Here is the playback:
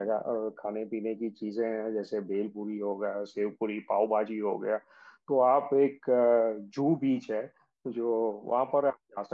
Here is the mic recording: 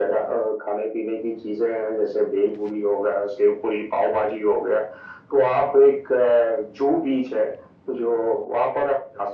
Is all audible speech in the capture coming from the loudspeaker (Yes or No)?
Yes